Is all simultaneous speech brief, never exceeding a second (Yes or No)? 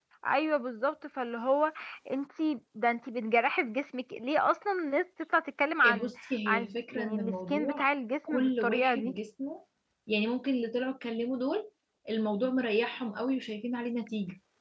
No